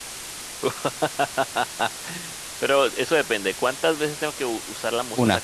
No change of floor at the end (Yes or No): Yes